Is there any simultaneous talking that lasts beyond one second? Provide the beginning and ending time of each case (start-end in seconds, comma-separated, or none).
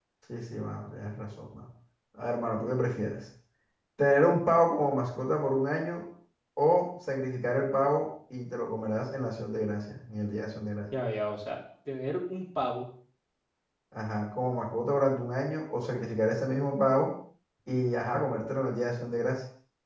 none